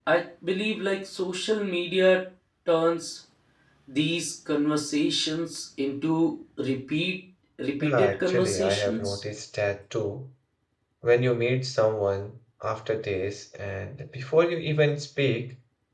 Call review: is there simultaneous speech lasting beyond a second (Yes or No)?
Yes